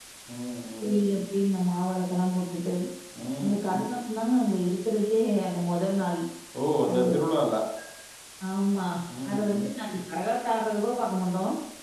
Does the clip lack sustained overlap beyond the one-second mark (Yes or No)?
Yes